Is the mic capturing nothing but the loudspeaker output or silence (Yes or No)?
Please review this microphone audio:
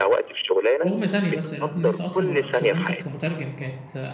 No